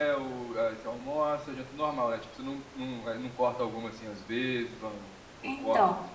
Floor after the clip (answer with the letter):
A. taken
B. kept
A